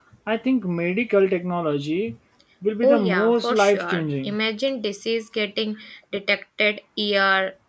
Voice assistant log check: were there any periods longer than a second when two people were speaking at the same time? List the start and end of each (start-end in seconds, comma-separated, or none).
2.8-4.4